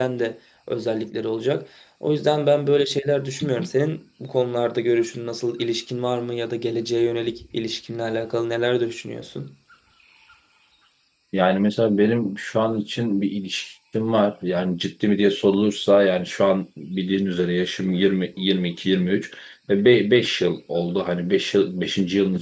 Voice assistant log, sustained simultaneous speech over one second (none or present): none